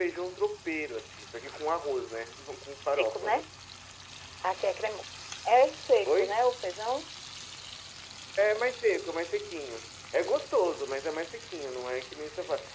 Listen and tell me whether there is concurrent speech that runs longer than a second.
No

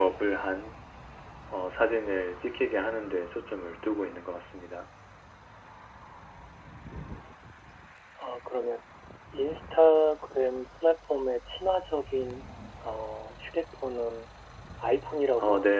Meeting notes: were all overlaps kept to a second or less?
Yes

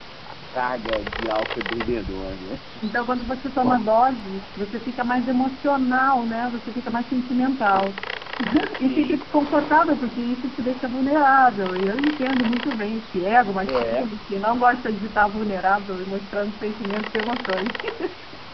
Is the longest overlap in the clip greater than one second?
No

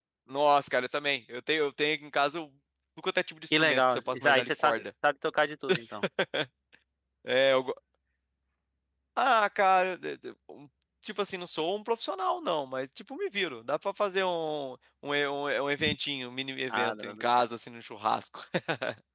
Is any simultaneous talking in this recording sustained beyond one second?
Yes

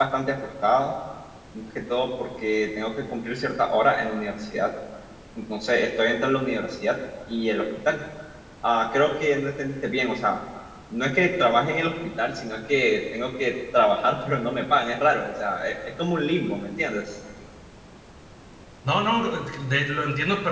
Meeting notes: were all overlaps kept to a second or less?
Yes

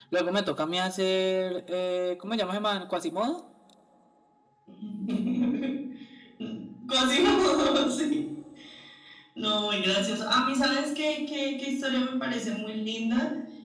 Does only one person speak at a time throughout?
Yes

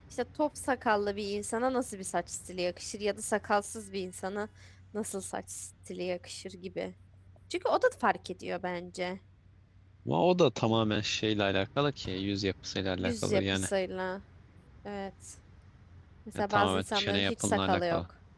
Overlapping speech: Yes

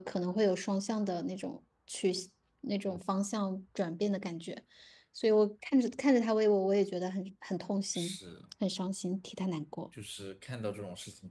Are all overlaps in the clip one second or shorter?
Yes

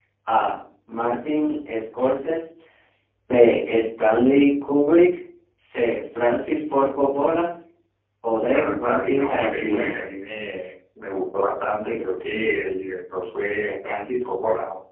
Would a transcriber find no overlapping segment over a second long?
No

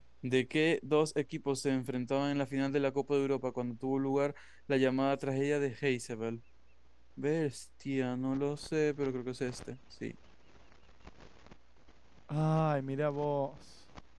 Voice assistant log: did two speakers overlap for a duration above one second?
No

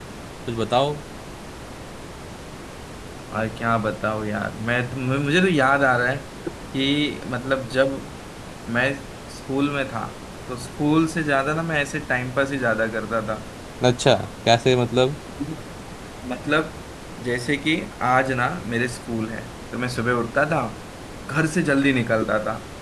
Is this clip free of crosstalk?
Yes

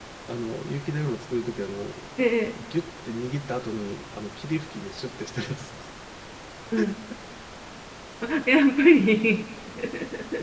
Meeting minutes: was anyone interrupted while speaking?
No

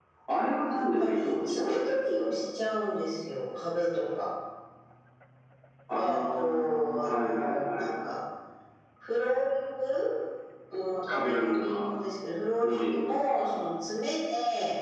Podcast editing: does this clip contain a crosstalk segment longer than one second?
Yes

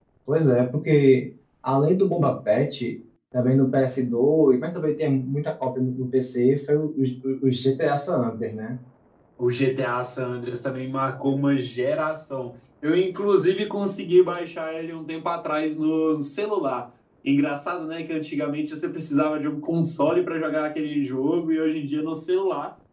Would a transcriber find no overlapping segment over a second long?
Yes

